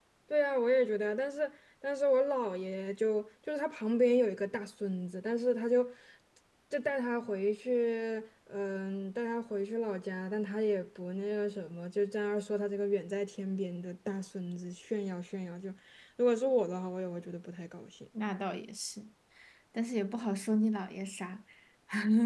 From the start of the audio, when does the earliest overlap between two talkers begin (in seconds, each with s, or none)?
none